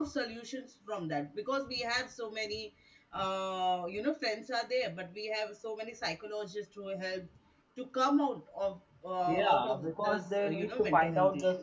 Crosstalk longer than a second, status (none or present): present